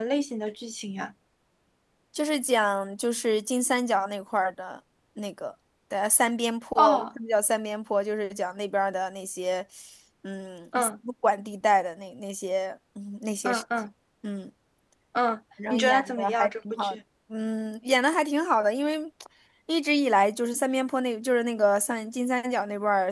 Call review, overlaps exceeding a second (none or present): present